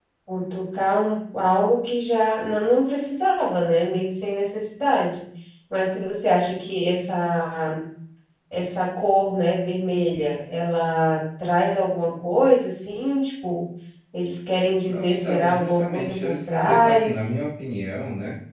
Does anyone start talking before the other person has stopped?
Yes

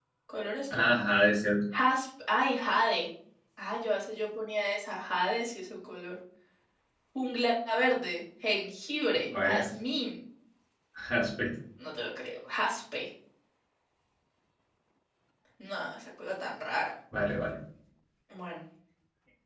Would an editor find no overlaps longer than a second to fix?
Yes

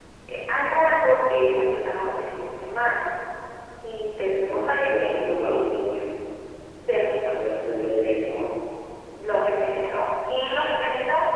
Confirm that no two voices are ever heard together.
No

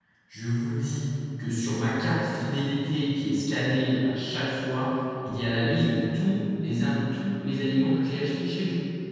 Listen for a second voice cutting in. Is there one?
No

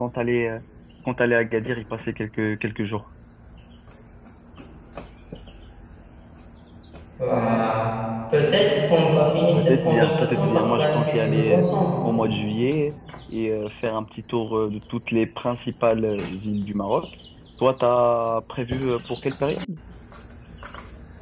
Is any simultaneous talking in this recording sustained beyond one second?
Yes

